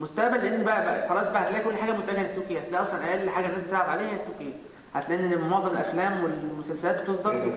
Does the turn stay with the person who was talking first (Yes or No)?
No